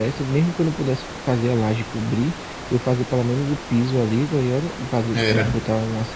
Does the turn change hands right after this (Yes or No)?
No